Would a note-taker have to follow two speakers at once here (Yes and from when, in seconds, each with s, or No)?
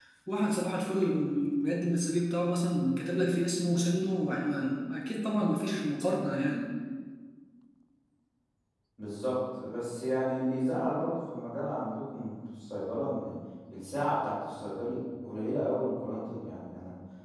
No